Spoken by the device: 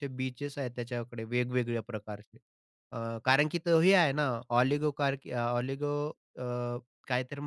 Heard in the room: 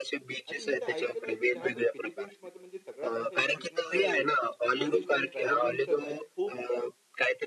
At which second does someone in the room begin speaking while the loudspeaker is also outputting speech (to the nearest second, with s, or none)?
0 s